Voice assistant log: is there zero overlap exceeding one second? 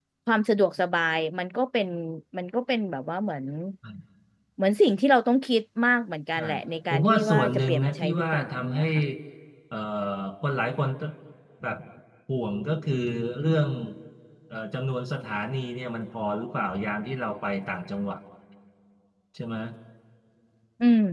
No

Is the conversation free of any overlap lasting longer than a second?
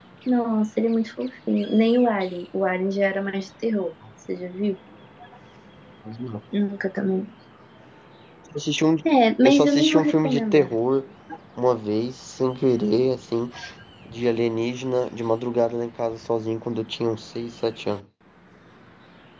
No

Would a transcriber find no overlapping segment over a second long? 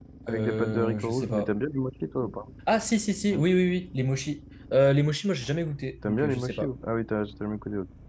No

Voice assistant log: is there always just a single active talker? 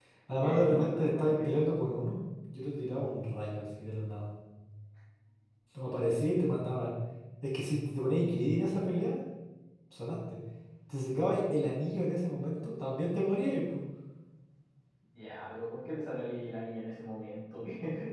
No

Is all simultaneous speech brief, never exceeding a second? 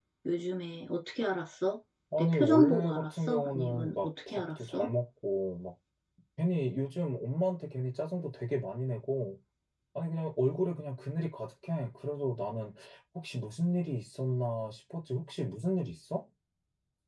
No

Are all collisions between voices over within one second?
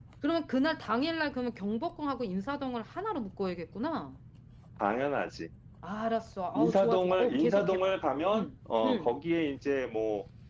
No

